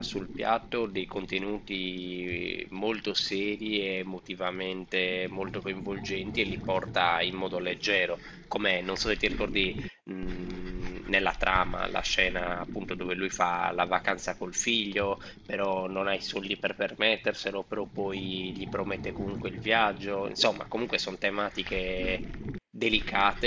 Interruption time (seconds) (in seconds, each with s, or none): none